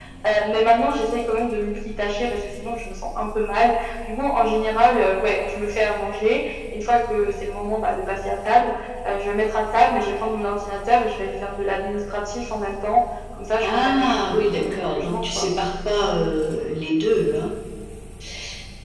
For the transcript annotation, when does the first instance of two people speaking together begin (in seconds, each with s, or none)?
13.6 s